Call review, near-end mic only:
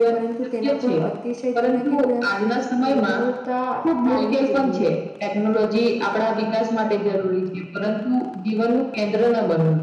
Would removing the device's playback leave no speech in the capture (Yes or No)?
Yes